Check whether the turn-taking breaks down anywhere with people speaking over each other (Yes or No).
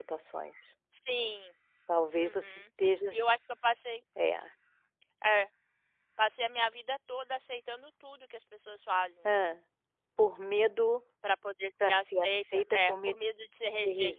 Yes